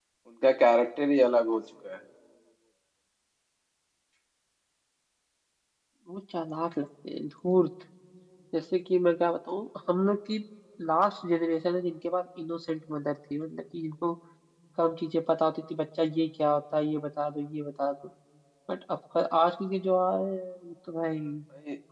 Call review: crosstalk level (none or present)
none